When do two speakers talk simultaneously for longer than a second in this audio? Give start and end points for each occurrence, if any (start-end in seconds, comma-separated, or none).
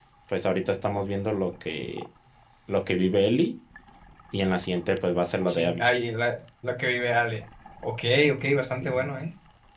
none